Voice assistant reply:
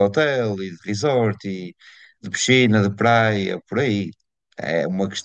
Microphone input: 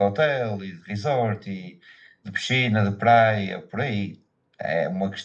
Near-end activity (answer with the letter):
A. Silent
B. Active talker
A